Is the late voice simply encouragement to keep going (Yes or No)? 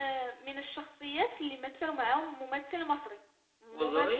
Yes